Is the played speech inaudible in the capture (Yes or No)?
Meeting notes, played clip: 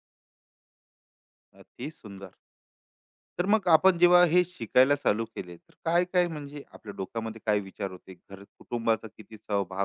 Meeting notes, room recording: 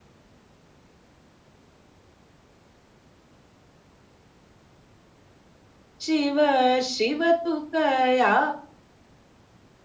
Yes